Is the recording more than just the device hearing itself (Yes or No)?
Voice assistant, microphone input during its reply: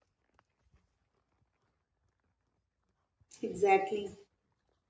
Yes